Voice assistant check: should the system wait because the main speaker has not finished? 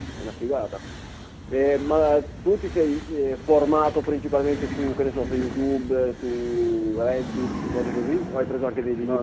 No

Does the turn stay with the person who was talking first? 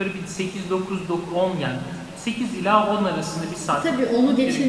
No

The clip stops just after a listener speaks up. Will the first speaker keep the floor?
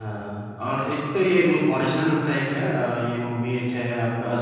Yes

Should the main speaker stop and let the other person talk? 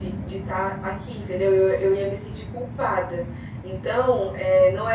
No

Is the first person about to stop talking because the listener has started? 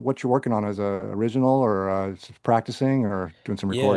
Yes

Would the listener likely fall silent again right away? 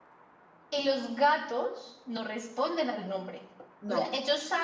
Yes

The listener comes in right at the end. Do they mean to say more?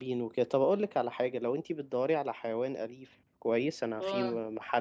No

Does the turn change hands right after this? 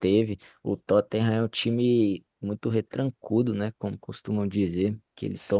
No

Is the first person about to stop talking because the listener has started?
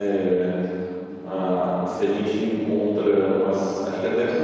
No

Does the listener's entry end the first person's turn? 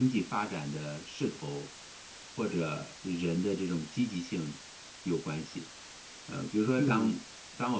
No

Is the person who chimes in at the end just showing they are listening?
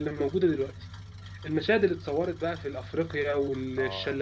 Yes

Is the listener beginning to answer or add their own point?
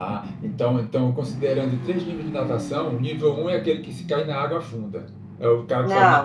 No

